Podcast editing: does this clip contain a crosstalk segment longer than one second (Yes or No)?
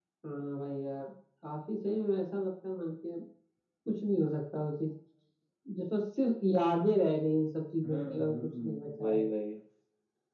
Yes